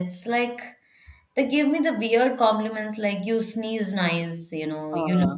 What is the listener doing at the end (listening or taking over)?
listening